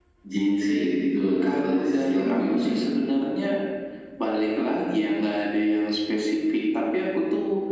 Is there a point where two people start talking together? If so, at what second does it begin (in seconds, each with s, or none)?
1.4 s